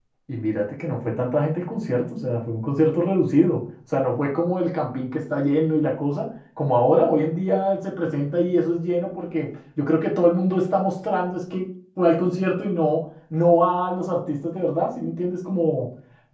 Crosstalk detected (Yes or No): No